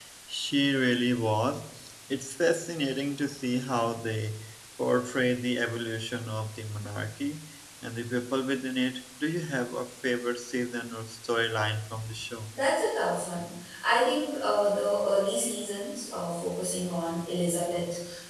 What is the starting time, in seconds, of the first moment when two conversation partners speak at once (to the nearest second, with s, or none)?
none